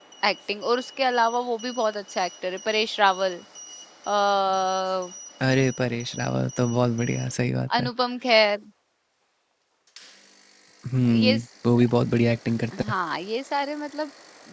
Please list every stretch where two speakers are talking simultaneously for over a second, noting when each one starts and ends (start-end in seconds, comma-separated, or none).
none